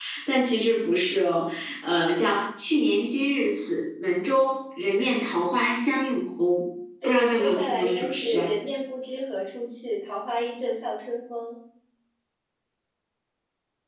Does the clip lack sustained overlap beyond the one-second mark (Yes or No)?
No